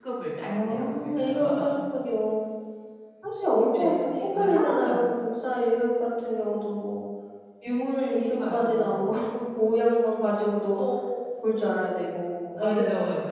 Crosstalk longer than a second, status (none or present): present